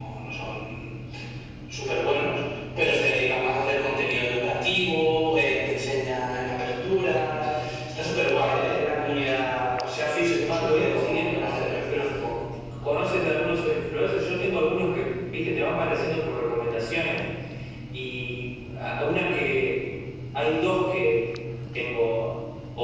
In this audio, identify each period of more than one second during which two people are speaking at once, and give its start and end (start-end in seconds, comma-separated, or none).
10.1-12.0